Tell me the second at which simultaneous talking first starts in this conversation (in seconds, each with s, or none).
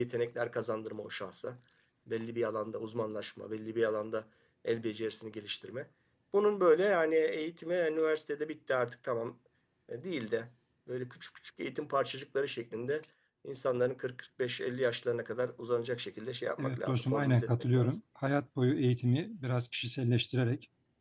16.6 s